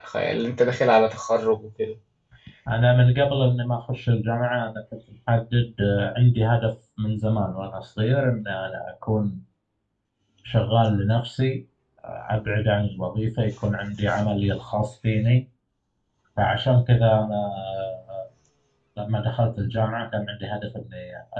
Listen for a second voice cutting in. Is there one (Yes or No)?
No